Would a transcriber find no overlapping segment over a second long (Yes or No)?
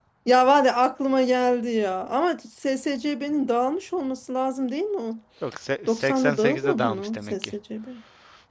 No